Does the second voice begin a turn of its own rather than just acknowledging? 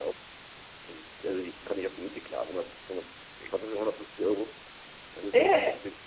Yes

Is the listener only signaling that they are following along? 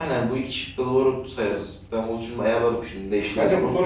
No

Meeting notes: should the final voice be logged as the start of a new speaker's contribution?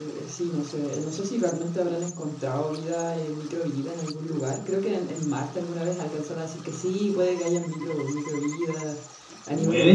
No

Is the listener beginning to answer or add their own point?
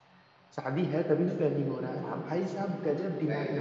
No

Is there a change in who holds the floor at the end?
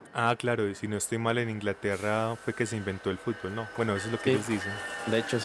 Yes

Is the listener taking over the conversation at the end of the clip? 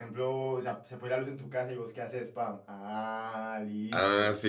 Yes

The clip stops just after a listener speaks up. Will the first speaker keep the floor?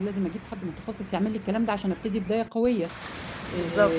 Yes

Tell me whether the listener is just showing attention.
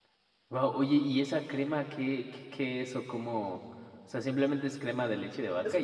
No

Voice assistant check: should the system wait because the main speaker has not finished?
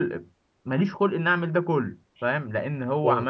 Yes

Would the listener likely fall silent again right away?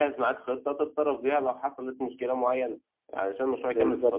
Yes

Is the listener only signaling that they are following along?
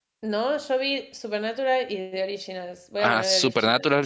No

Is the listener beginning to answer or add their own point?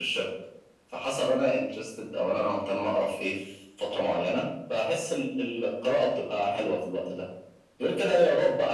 No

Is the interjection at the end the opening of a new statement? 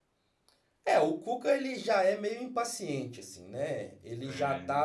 No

